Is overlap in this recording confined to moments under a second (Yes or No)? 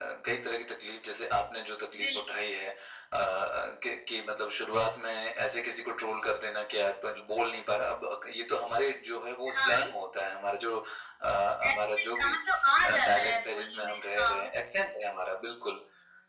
No